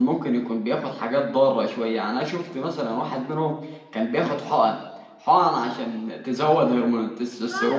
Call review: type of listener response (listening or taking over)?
taking over